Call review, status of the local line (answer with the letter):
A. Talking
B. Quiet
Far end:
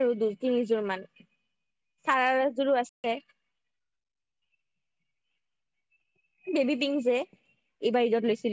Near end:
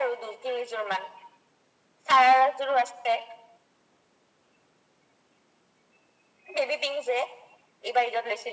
B